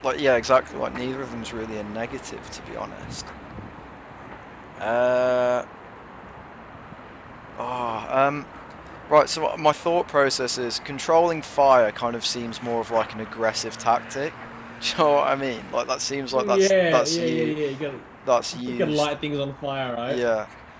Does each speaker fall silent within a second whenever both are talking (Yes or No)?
No